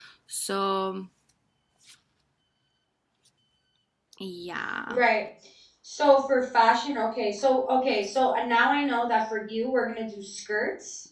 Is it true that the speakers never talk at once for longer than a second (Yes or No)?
Yes